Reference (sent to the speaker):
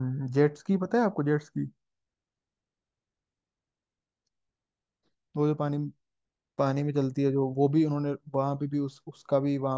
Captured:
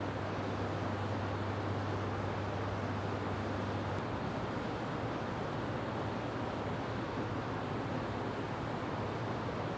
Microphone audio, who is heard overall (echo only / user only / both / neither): neither